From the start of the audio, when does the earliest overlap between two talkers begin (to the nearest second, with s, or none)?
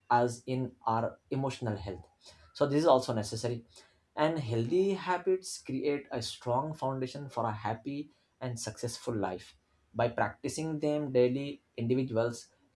none